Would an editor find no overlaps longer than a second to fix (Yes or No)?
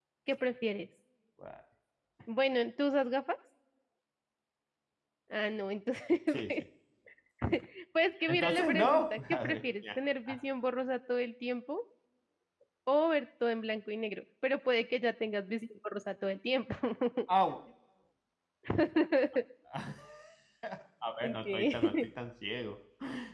No